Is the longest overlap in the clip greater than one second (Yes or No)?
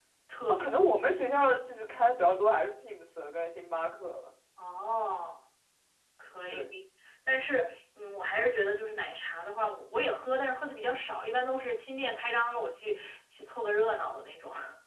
No